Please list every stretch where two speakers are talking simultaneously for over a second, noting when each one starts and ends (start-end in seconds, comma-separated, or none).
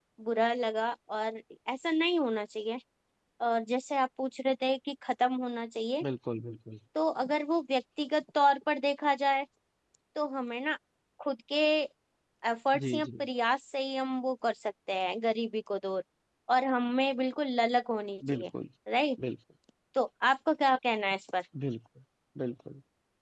none